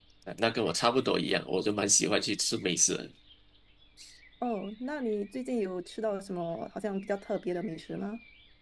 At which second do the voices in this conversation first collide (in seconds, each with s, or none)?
none